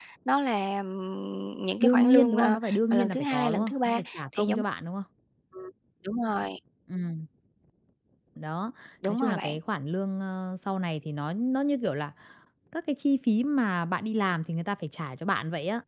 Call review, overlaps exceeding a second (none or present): present